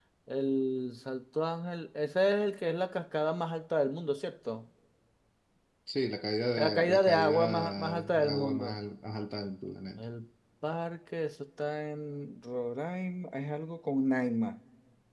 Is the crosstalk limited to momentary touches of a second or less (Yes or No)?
No